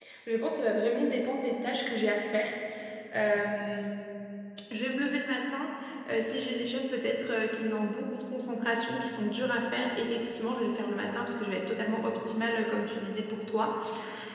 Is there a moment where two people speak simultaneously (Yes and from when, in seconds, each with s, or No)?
No